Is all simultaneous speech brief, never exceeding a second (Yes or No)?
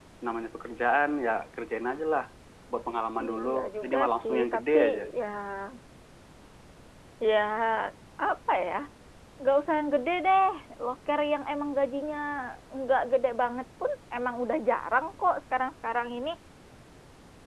No